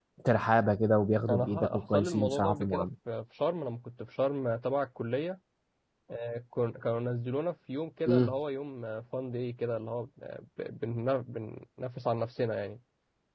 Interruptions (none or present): present